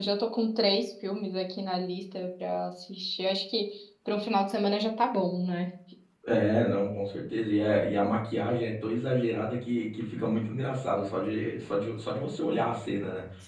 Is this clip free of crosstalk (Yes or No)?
Yes